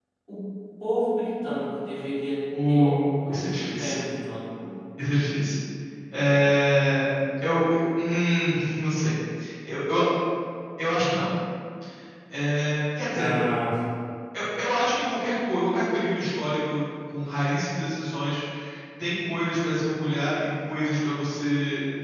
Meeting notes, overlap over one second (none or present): present